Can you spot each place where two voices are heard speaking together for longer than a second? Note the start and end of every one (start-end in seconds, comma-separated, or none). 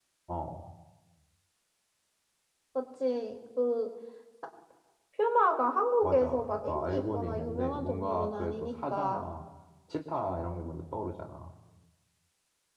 6.0-9.3